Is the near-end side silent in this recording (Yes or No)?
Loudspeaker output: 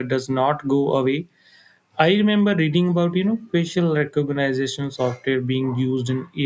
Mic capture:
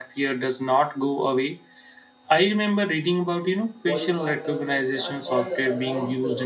No